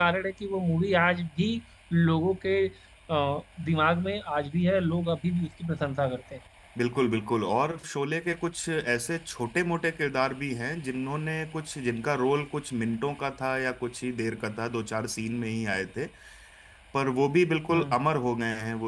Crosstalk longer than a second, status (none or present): none